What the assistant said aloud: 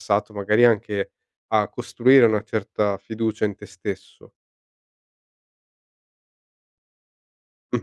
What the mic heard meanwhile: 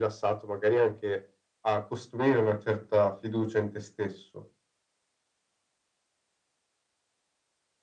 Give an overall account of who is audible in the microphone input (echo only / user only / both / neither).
echo only